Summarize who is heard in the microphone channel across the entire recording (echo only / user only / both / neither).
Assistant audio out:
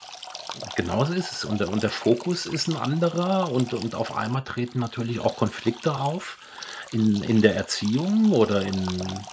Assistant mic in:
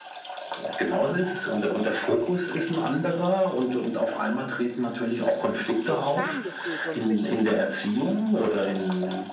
both